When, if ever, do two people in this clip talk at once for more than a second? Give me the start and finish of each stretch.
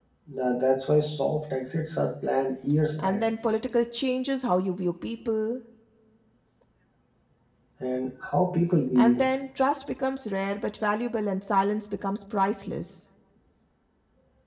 none

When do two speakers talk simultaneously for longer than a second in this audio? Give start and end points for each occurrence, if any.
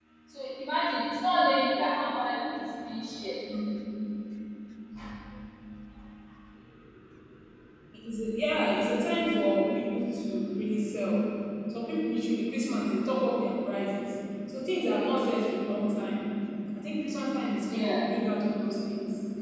none

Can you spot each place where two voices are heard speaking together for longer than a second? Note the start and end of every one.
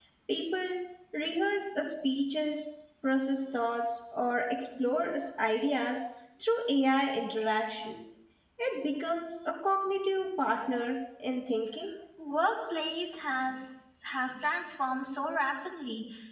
none

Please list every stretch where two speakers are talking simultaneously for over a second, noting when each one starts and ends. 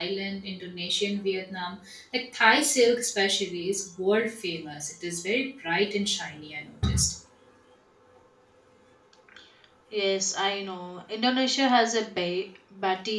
none

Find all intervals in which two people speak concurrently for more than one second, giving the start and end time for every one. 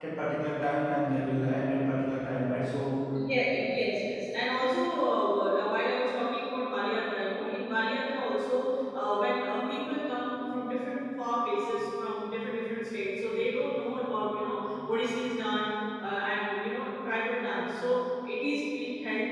none

